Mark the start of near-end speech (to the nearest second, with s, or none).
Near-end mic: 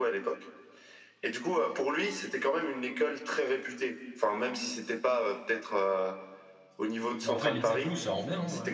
7 s